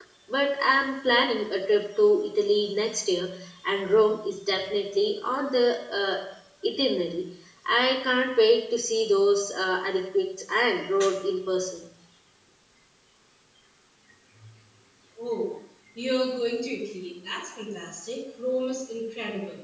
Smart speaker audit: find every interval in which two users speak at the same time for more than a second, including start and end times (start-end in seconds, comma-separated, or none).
none